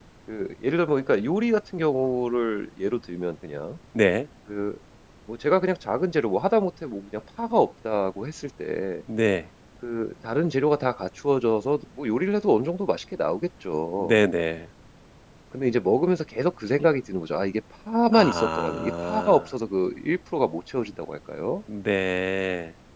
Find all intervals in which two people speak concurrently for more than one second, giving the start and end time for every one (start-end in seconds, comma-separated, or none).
18.1-19.4